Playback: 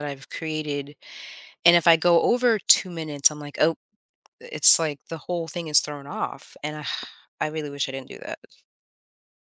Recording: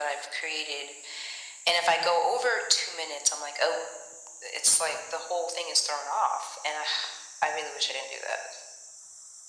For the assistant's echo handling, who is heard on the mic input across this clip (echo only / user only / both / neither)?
echo only